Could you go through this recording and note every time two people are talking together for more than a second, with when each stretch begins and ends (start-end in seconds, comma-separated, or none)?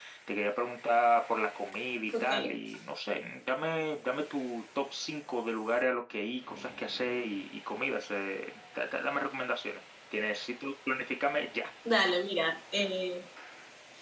none